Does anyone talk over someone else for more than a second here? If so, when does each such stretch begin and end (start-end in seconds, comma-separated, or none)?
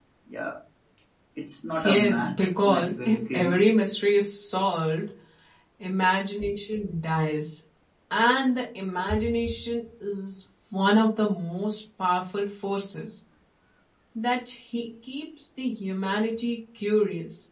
1.8-3.6